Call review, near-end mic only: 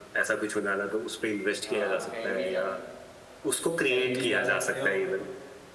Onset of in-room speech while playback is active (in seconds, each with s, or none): 1.6 s